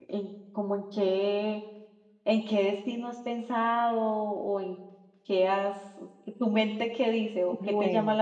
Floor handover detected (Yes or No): Yes